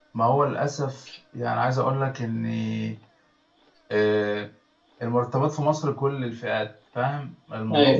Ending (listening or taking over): taking over